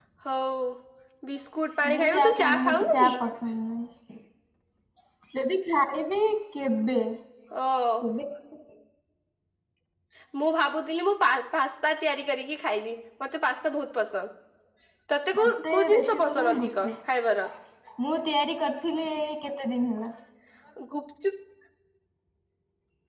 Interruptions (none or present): present